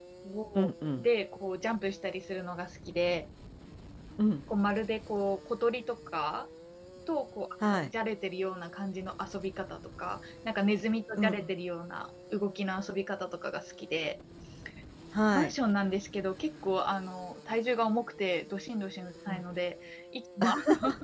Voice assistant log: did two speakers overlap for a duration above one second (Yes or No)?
No